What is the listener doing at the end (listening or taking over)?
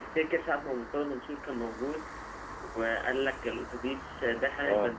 listening